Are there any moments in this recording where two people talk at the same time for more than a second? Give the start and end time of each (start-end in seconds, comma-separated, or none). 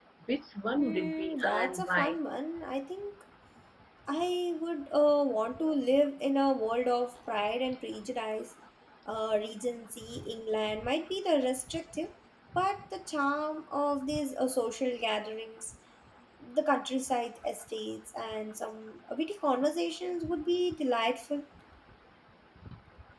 0.8-2.1